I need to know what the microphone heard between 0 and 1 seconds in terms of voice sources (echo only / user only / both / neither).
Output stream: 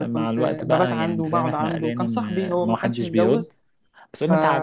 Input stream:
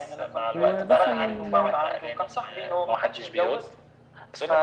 both